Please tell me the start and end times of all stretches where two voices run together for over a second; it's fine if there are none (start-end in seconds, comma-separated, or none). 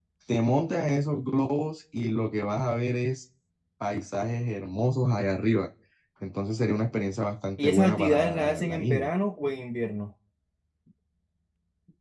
7.6-9.1